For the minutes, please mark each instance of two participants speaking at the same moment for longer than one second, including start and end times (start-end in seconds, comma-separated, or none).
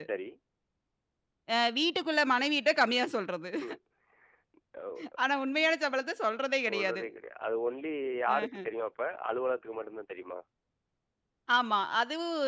none